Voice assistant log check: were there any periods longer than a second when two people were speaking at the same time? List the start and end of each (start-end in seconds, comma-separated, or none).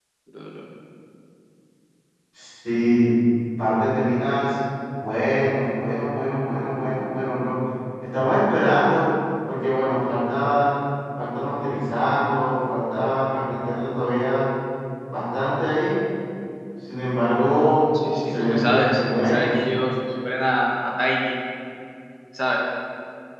18.0-19.5